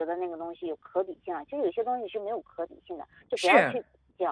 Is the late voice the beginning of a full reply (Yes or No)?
Yes